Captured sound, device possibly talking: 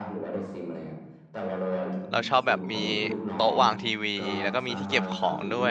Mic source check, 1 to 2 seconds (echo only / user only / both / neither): echo only